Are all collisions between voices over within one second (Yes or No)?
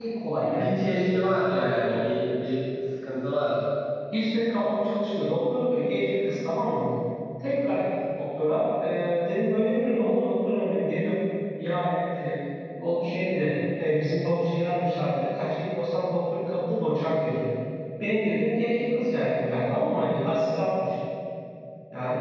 No